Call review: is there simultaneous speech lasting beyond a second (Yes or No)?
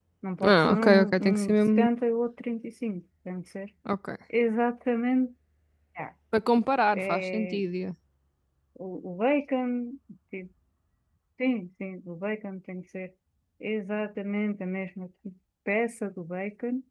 Yes